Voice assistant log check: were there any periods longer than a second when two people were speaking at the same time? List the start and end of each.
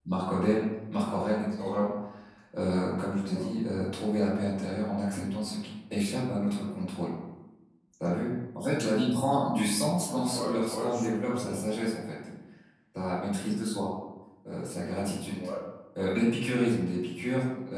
10.3-11.6

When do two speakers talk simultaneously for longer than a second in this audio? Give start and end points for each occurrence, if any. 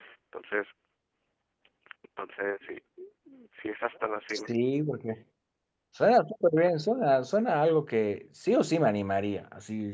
none

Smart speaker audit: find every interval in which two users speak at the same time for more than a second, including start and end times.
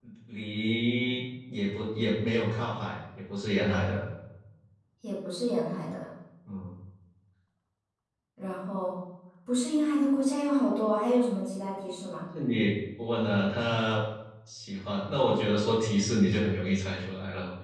none

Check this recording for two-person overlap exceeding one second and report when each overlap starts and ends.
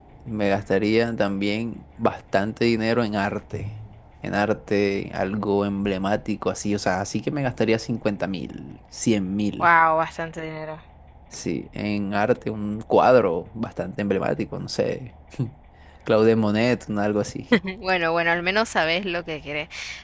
none

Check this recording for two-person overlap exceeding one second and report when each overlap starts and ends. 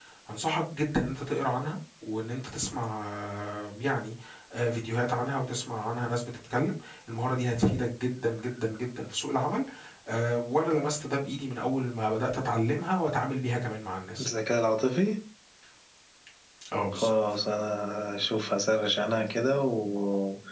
none

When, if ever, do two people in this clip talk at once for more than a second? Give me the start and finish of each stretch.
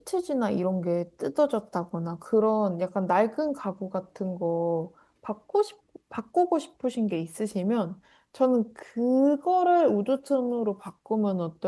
none

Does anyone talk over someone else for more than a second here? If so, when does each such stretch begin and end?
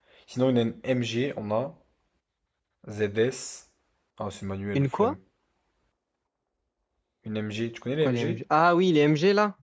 none

